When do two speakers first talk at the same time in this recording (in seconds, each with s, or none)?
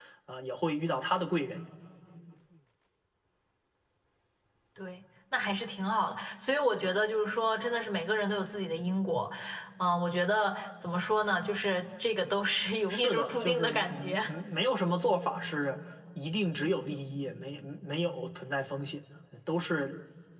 12.9 s